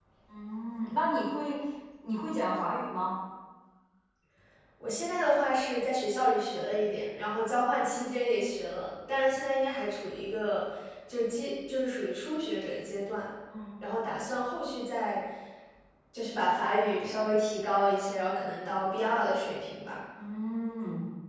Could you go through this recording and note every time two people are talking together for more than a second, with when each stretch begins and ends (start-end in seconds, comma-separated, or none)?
none